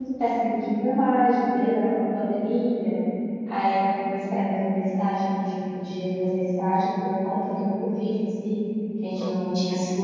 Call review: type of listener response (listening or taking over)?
listening